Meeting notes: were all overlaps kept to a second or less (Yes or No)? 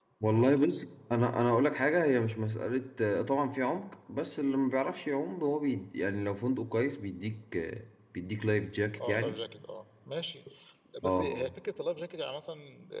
Yes